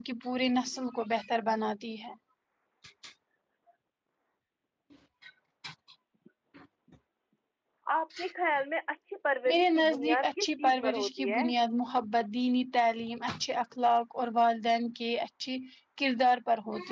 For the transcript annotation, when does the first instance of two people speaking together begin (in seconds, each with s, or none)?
9.5 s